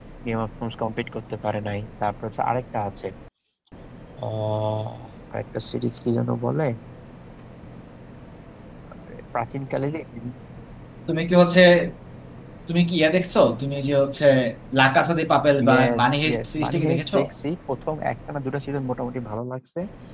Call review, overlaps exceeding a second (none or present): present